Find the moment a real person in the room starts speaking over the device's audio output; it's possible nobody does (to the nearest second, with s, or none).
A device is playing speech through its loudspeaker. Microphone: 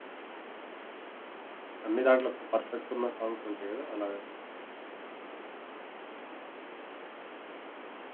2 s